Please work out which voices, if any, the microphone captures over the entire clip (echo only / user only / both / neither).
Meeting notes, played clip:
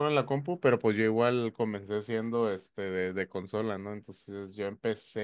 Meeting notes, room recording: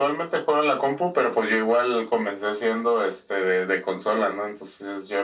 echo only